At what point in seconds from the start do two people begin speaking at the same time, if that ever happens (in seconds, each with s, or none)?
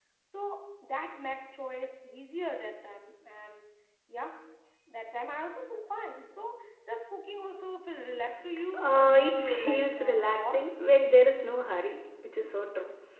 8.8 s